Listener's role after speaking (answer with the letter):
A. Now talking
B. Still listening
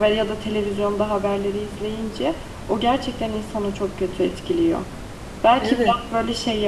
B